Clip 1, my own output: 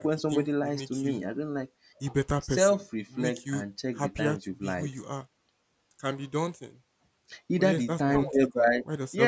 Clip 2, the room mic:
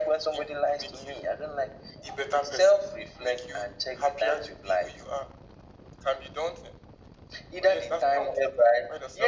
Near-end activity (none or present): none